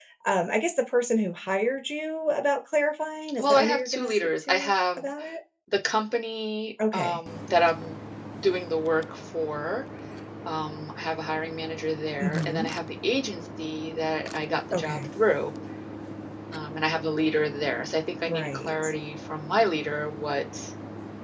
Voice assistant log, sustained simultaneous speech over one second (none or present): present